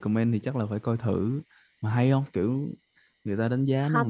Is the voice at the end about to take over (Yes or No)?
Yes